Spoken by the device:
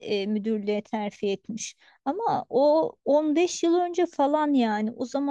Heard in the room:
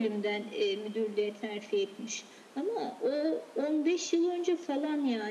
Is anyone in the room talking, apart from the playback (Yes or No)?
No